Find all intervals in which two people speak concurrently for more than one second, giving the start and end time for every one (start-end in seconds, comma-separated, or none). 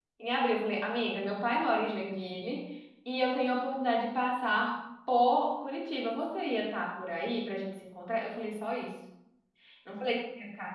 none